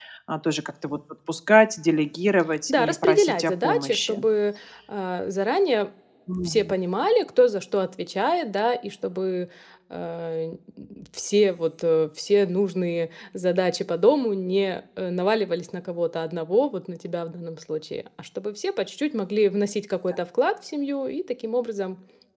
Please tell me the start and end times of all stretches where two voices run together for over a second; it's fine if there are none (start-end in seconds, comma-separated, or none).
2.7-4.2